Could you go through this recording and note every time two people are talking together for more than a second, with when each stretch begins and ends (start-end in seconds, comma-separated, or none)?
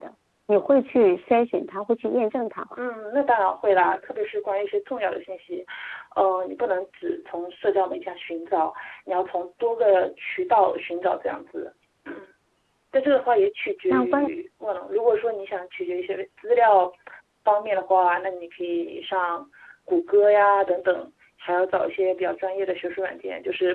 none